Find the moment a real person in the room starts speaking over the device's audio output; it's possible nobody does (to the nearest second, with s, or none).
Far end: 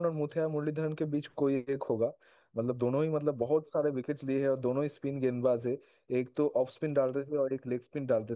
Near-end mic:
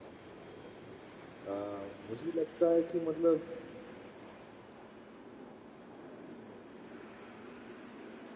1 s